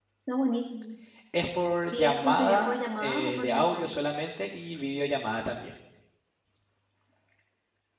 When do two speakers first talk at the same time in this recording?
2.0 s

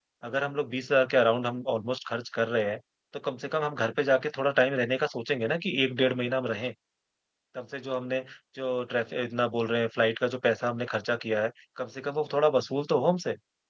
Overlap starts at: none

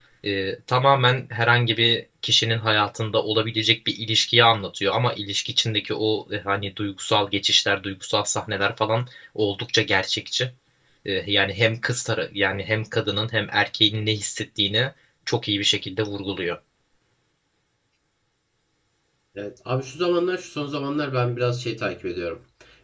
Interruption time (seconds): none

